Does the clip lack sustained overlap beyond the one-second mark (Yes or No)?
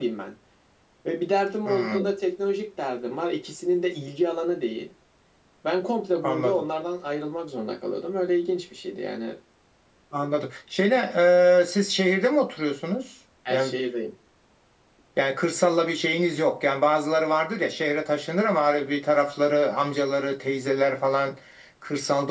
Yes